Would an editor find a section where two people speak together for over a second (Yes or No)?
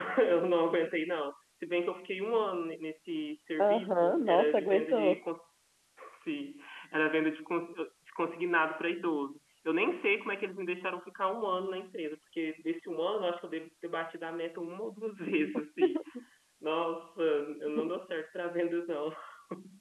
Yes